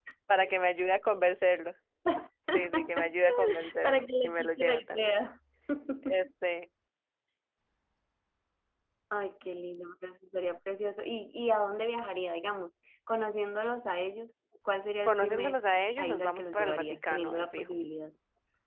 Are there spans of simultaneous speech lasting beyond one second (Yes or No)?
Yes